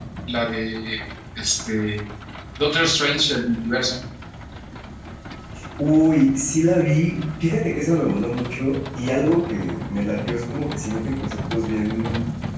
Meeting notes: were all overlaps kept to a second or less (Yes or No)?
Yes